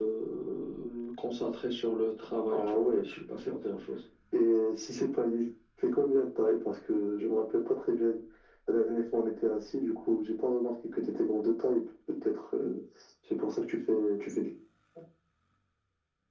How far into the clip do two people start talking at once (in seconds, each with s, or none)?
2.5 s